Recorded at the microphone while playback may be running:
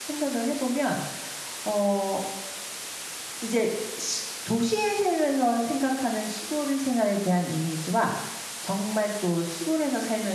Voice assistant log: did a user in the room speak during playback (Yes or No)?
Yes